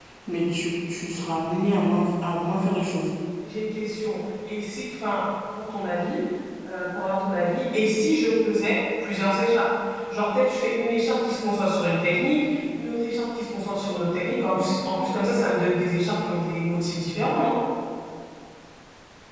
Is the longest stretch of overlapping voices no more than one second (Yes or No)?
Yes